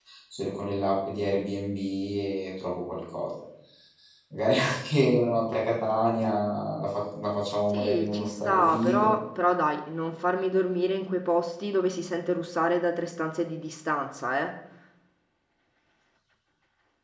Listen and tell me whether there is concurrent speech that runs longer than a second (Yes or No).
Yes